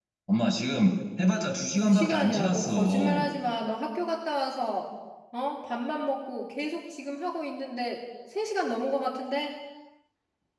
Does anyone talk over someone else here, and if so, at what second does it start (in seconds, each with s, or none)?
1.8 s